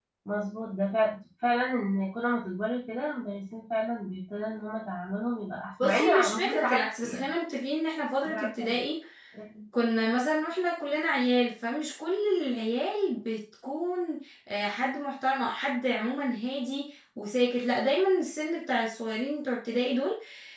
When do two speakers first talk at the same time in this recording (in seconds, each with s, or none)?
5.8 s